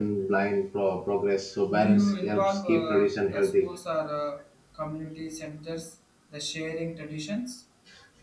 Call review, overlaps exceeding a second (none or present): present